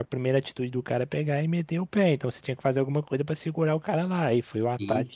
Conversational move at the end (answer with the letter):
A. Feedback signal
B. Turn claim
B